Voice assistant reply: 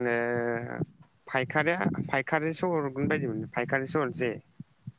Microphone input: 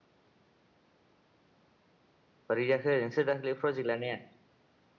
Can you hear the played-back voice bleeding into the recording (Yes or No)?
No